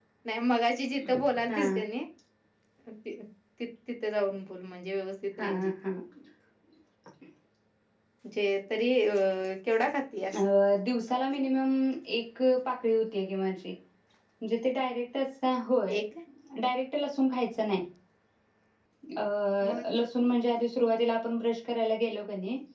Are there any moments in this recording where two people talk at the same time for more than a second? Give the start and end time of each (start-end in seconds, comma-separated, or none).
none